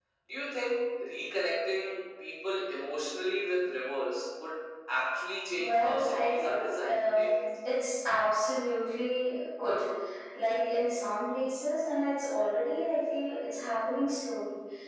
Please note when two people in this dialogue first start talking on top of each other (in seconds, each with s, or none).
5.6 s